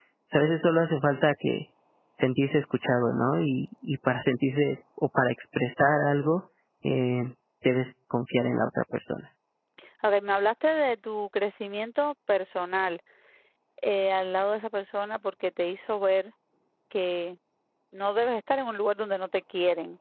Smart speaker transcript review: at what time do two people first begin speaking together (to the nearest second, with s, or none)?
none